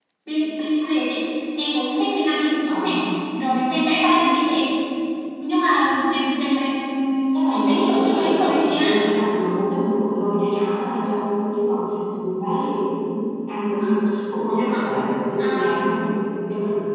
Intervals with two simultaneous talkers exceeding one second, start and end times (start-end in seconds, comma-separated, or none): 7.3-9.0